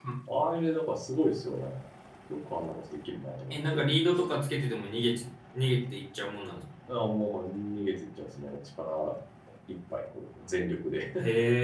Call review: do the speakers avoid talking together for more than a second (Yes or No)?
Yes